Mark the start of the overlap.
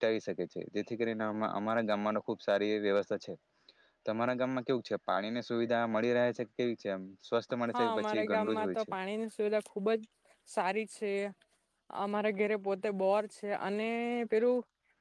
7.7 s

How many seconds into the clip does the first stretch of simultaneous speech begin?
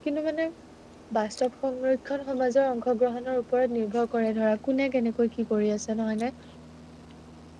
none

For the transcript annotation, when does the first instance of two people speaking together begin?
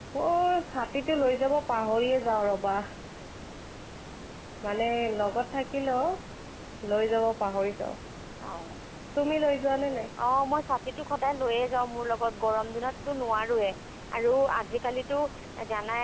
none

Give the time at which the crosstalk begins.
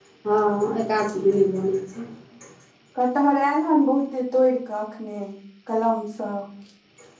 none

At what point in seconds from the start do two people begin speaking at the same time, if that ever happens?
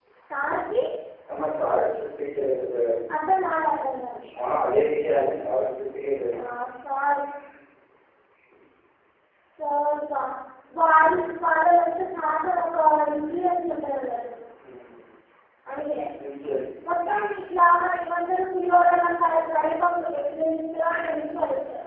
none

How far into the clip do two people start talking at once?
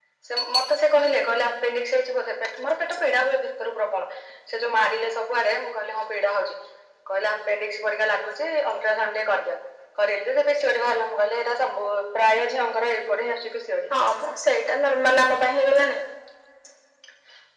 none

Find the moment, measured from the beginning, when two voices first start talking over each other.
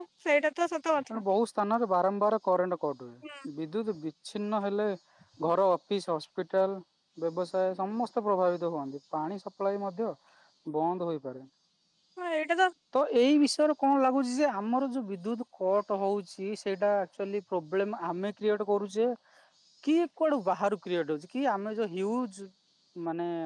none

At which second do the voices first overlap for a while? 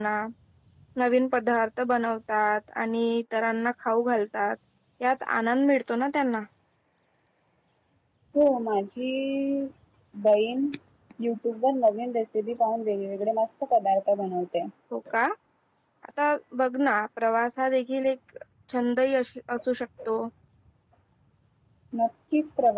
none

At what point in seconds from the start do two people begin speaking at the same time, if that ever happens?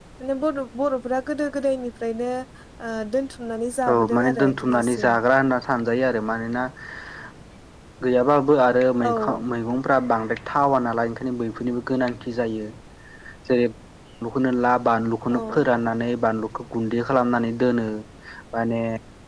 3.9 s

